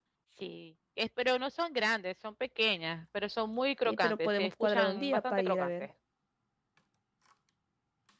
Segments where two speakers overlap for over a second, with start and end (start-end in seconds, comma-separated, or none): 3.9-5.7